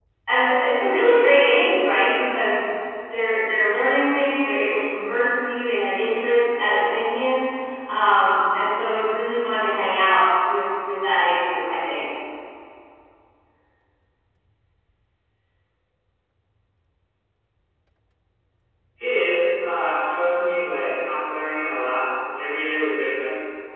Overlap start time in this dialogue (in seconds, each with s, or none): none